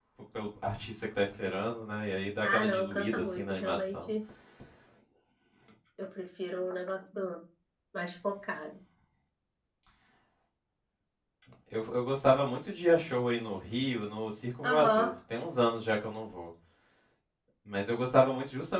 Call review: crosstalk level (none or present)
present